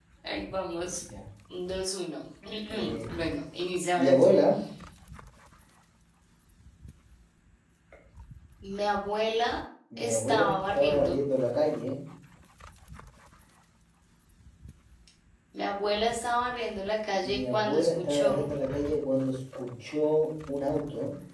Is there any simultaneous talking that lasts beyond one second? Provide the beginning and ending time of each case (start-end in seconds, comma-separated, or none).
10.0-11.2, 17.2-18.5